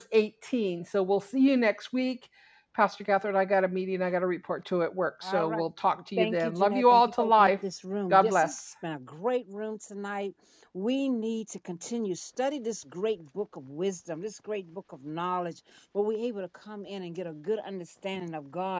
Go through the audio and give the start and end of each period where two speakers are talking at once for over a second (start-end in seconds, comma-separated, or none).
6.2-7.5